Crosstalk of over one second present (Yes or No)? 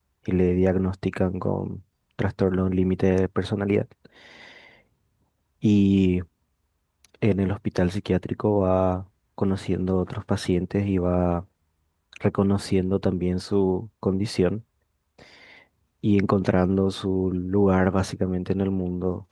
No